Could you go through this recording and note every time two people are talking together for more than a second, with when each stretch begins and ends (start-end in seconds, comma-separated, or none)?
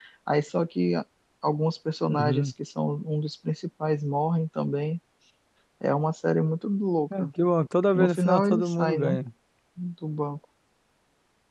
7.9-9.2